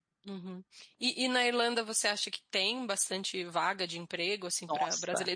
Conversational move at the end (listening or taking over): listening